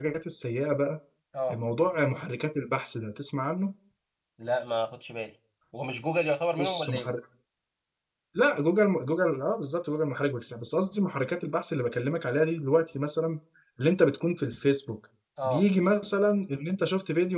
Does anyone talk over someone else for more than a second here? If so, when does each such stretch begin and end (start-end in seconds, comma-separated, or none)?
none